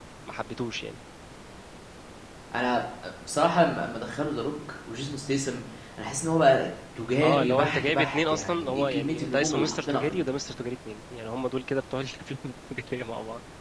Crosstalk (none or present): present